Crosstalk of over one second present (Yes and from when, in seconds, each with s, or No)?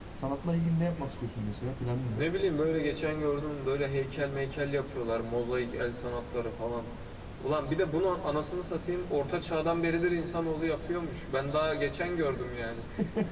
No